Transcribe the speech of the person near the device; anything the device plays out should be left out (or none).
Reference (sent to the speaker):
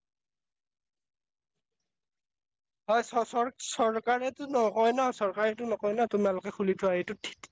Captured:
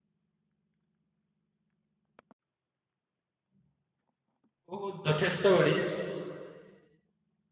বহুত যথেষ্ট বাঢ়িছে